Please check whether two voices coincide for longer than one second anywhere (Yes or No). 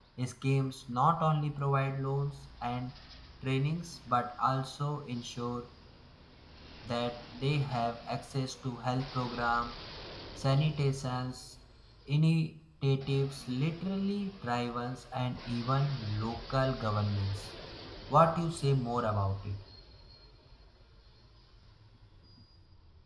No